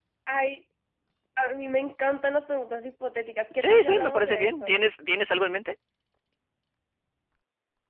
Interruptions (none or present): present